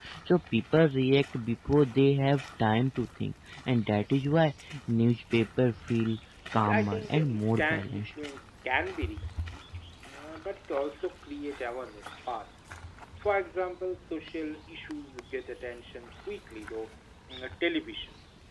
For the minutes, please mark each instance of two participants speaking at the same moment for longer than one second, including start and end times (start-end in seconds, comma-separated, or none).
6.7-8.1